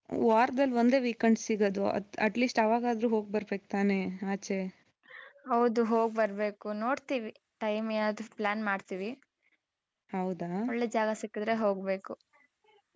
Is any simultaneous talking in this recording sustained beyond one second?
No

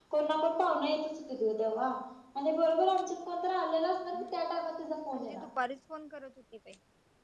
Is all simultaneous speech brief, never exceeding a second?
Yes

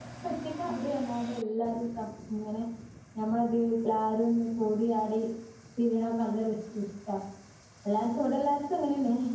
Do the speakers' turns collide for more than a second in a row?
No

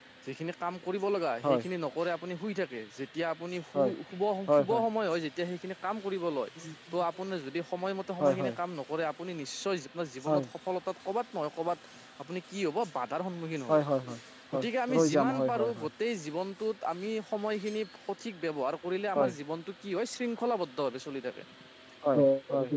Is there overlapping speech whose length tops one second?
Yes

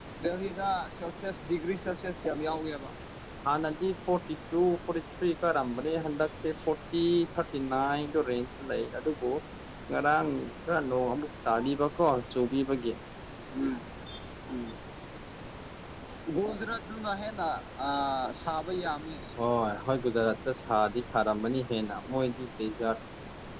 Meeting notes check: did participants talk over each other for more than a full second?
No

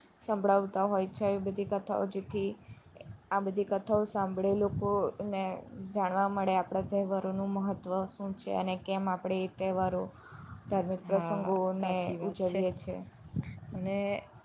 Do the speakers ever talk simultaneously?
Yes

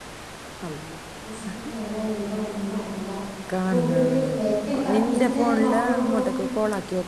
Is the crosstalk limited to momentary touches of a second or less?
No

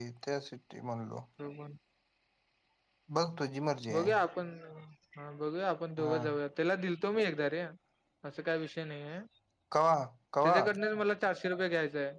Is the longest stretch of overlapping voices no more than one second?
Yes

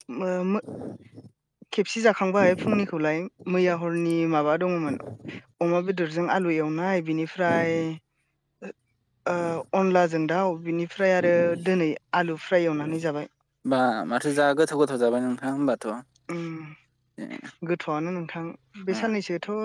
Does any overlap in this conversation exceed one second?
No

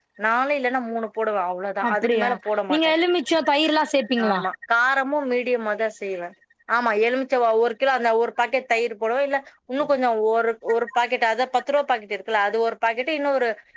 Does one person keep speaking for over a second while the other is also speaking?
No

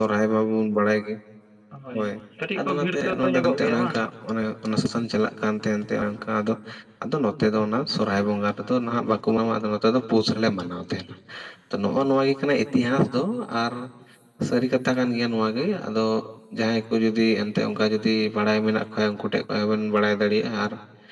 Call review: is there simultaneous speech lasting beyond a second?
Yes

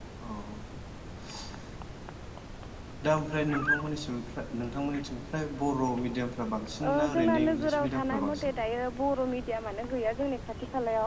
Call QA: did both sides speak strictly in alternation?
No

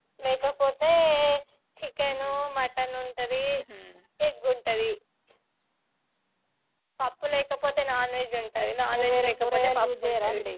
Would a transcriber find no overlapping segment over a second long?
No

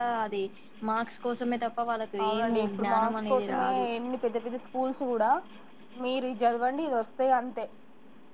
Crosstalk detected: Yes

